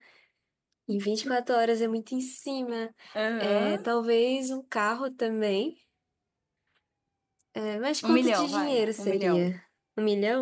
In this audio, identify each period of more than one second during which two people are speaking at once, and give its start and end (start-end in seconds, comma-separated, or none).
8.0-9.5